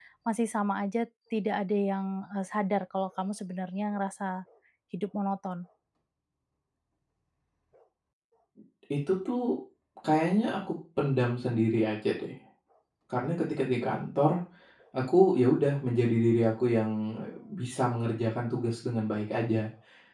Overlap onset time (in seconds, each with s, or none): none